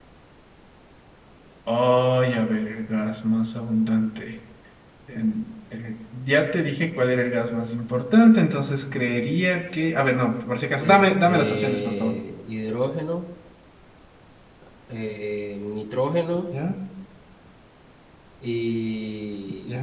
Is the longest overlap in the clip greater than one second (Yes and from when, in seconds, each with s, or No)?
Yes, from 10.8 s